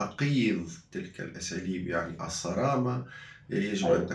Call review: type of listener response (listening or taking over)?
listening